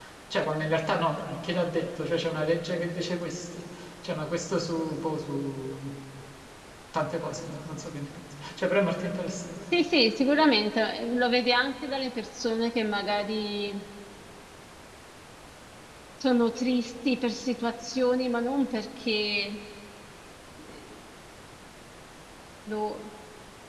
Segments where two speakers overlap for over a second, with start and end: none

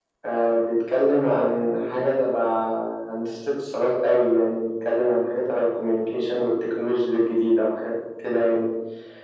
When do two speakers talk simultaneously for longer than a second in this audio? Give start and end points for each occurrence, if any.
none

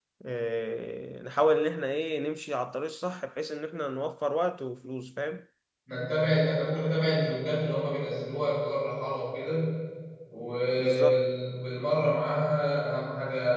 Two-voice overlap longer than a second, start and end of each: none

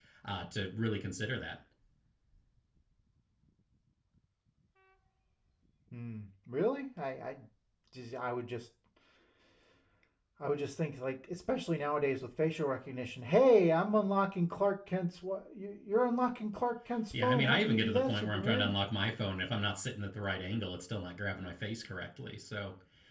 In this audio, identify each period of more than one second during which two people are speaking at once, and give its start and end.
17.2-18.7

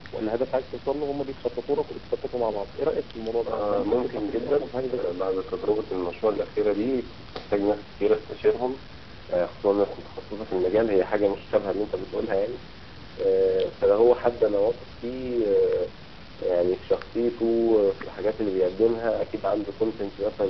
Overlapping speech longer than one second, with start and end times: 3.5-5.1

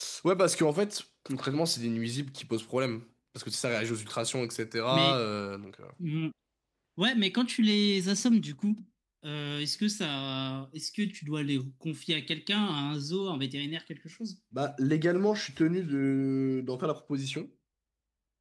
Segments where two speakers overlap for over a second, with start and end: none

